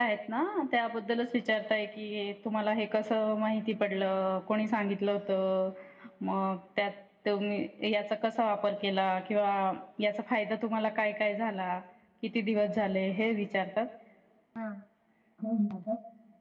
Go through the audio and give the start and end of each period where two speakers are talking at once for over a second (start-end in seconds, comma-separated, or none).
none